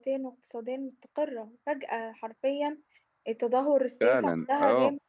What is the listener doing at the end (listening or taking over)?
taking over